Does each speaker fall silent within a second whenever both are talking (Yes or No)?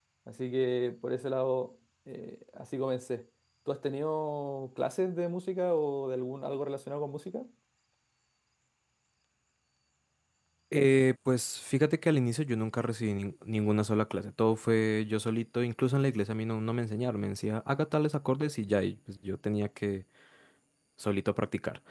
Yes